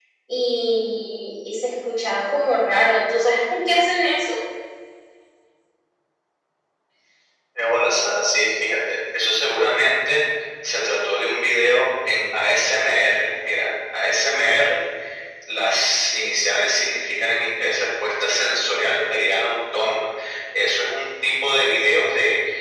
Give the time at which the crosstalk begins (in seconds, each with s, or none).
none